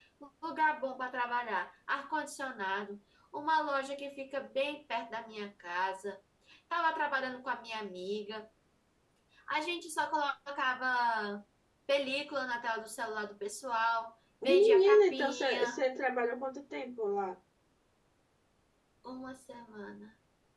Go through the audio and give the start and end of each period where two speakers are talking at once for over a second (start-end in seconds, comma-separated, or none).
14.4-15.8